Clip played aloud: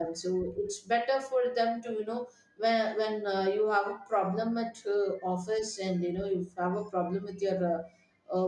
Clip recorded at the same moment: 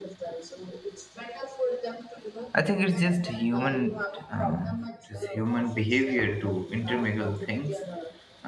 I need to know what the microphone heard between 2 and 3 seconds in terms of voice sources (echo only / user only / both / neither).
both